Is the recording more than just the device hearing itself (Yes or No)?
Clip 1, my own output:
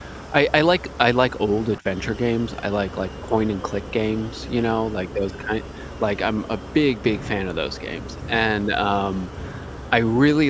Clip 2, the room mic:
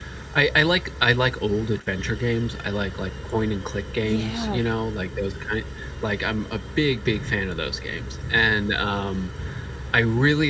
Yes